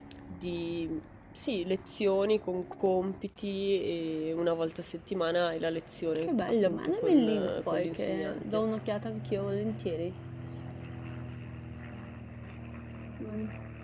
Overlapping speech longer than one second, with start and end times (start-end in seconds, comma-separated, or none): 6.2-8.6